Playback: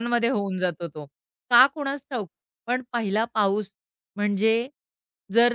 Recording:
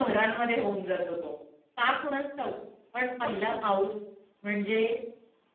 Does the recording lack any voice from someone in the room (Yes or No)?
No